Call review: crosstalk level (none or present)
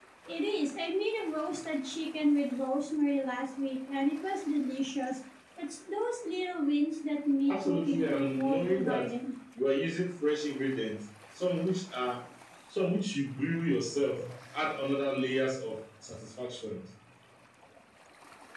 present